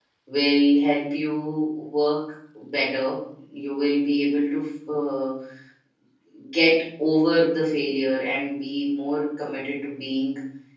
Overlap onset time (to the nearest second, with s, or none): none